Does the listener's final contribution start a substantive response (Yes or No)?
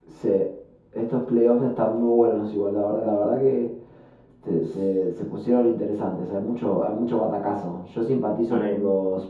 No